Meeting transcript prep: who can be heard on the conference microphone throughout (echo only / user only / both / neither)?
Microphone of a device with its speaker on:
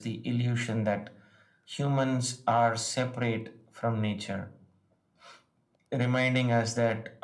echo only